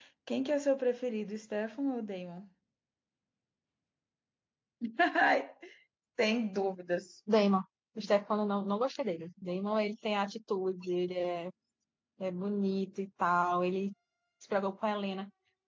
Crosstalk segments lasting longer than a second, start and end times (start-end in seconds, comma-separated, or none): none